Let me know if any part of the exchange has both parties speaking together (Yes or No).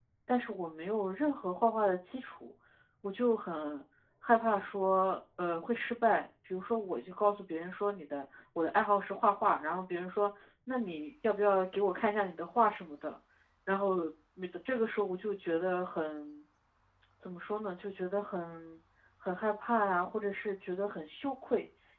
No